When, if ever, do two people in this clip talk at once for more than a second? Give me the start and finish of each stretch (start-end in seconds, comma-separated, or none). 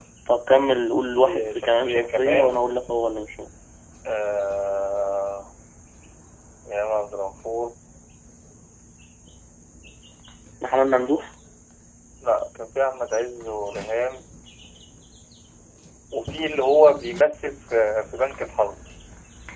1.1-2.6